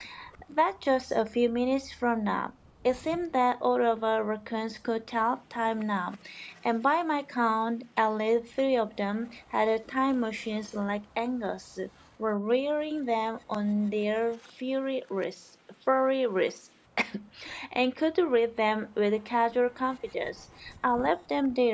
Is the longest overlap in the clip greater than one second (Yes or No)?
No